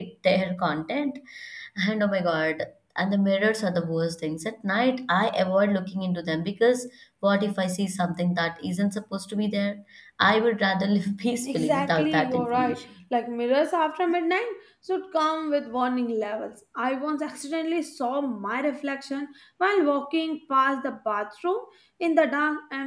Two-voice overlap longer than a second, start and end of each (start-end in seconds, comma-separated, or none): 11.4-12.8